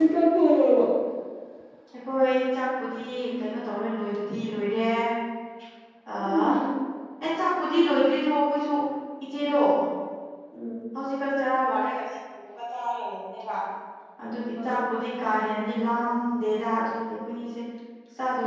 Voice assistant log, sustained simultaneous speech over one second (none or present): none